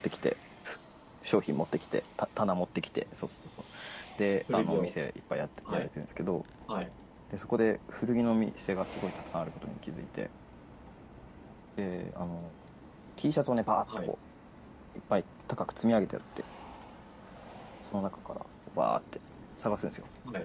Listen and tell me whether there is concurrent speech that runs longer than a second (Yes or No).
No